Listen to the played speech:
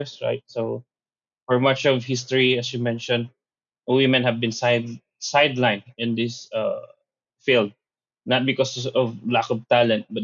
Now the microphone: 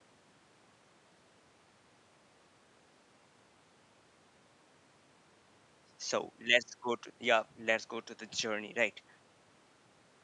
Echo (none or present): none